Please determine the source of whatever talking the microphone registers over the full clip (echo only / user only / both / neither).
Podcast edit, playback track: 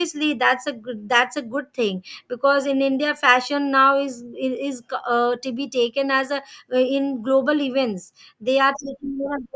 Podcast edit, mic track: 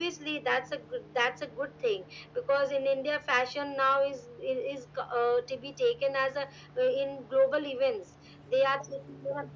echo only